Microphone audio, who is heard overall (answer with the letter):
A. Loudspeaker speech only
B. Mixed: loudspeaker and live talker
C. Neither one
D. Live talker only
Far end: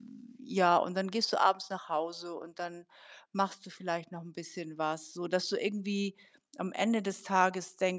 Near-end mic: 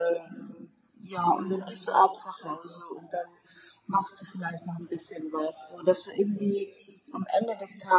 B